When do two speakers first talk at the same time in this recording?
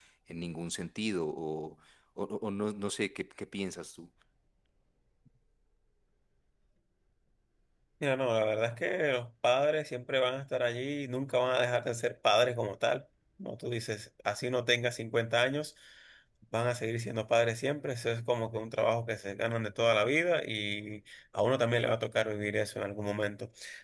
none

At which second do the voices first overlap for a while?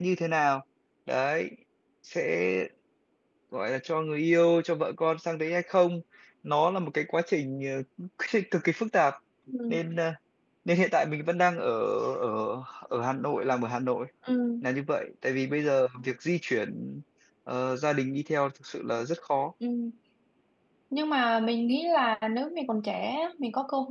none

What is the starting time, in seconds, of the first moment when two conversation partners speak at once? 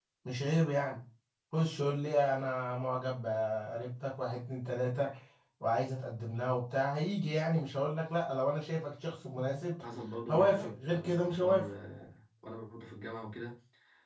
10.3 s

